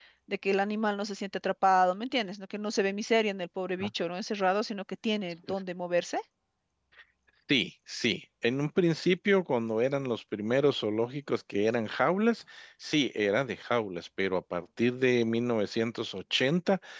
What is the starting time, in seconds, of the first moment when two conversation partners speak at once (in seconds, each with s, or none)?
none